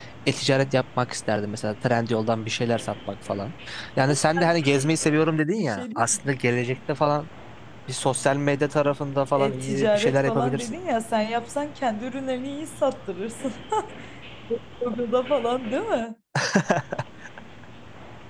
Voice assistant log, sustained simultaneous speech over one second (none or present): present